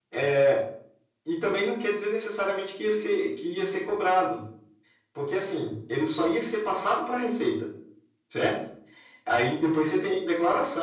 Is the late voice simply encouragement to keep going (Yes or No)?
Yes